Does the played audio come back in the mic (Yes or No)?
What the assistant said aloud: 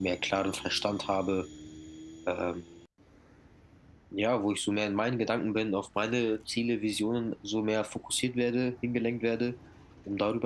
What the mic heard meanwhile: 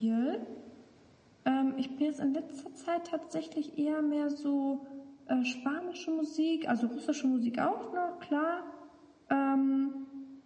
No